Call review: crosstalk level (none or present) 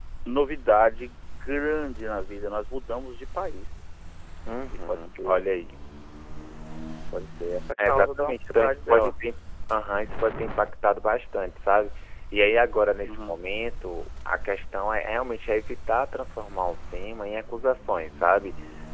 present